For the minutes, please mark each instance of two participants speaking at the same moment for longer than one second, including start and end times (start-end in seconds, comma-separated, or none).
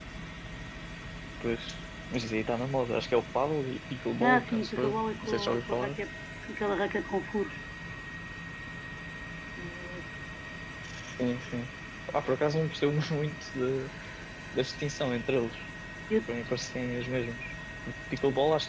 4.2-6.0